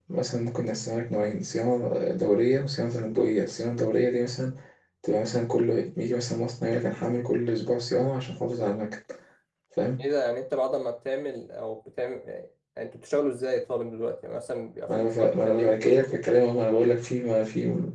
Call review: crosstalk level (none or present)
present